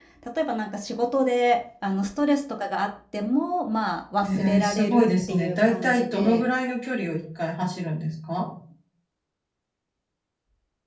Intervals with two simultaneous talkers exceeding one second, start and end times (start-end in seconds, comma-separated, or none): 4.2-6.4